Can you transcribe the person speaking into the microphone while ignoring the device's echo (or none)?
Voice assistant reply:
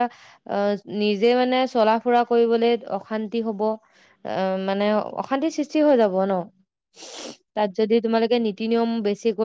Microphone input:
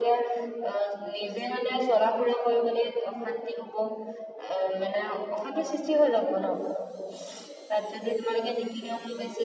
none